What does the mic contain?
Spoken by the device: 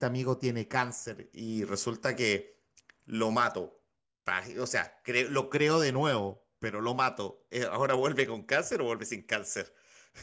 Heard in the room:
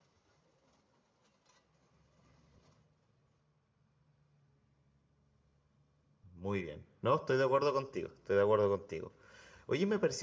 user only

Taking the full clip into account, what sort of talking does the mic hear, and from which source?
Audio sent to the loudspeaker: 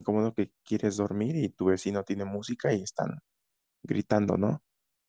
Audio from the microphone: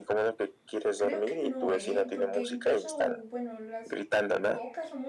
both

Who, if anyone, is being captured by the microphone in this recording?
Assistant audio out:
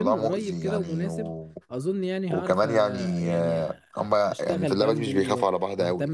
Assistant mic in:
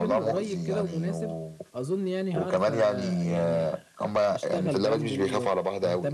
echo only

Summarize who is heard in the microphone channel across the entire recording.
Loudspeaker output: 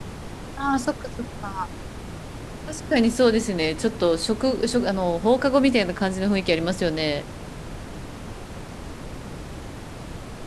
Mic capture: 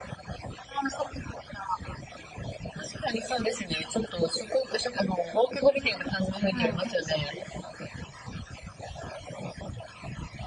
both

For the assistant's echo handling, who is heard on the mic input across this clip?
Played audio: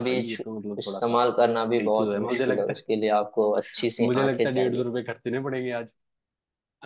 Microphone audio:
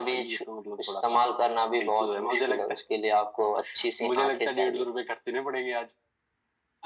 echo only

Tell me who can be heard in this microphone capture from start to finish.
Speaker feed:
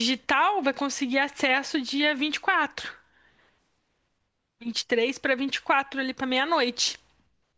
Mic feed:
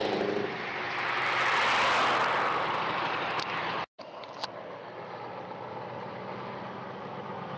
neither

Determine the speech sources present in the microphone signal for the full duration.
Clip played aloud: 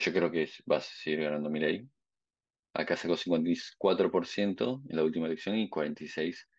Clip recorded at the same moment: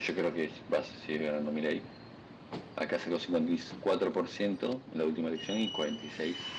echo only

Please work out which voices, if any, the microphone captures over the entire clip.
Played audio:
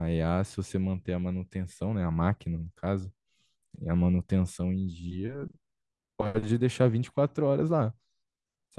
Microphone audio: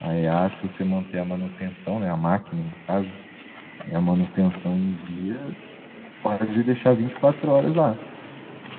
echo only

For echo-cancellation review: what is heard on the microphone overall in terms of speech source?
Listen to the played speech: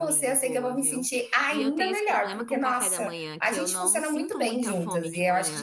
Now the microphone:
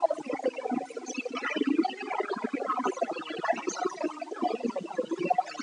echo only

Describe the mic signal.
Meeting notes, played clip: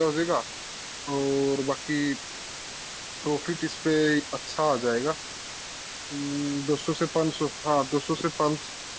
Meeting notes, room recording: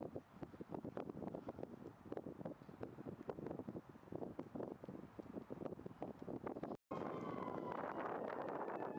neither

